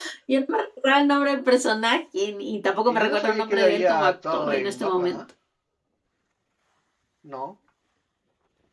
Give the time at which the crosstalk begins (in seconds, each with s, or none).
2.9 s